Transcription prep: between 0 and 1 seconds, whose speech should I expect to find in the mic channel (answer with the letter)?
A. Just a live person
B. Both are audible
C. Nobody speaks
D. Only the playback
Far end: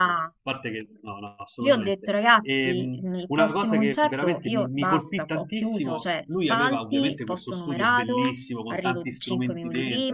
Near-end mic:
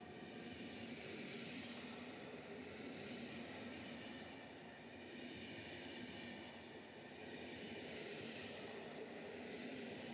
C